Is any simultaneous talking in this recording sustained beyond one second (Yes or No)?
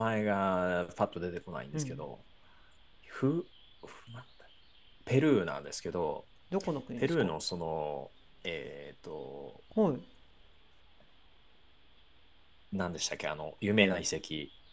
No